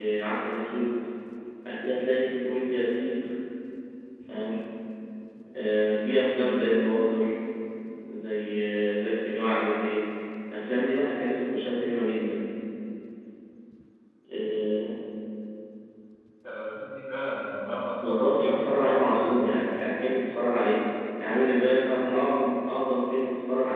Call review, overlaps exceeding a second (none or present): present